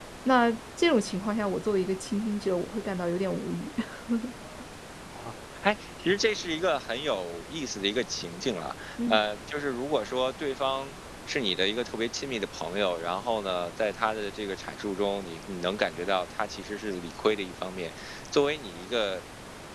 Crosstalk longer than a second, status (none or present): none